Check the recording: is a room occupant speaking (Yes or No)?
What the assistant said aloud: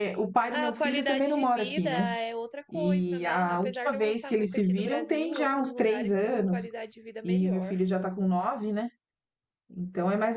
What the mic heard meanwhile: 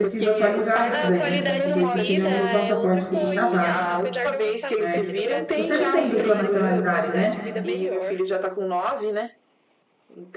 Yes